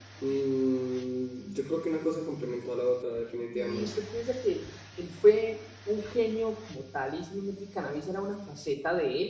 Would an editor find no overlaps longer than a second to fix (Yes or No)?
Yes